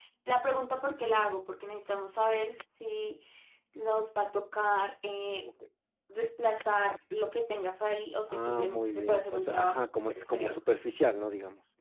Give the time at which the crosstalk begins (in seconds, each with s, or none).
8.3 s